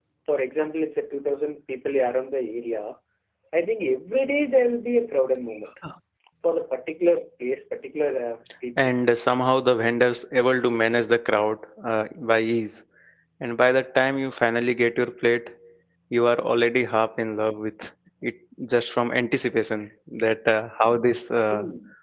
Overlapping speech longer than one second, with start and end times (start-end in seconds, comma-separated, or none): none